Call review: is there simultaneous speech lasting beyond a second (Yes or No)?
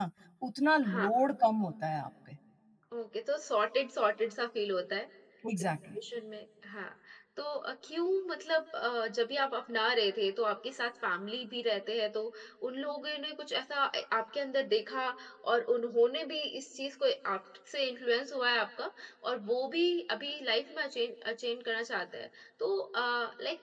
No